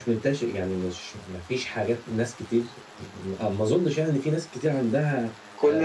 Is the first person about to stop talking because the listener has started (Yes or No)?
Yes